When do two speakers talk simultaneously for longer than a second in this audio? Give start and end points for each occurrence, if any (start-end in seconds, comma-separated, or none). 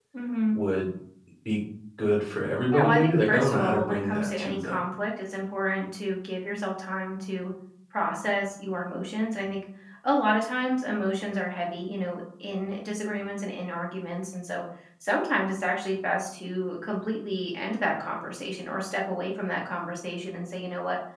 2.7-4.8